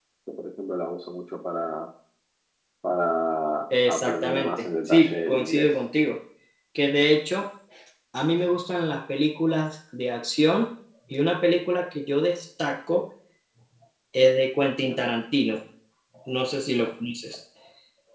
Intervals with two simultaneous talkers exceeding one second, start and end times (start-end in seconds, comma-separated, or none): 3.9-5.7